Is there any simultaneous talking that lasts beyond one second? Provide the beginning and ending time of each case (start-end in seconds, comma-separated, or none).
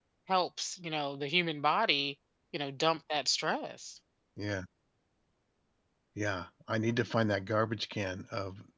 none